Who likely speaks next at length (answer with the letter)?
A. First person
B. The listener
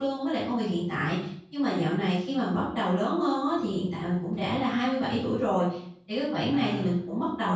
A